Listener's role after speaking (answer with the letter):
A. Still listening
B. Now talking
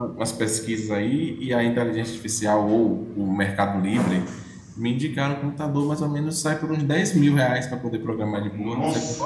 B